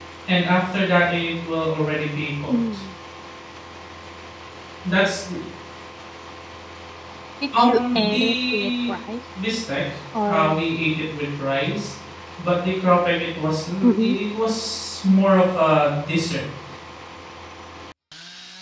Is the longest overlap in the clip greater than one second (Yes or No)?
Yes